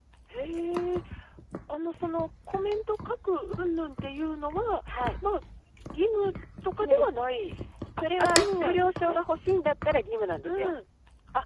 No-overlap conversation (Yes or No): No